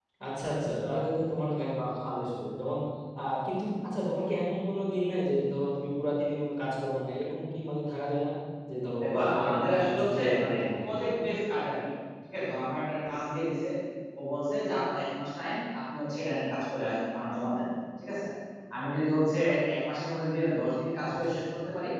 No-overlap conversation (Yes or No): No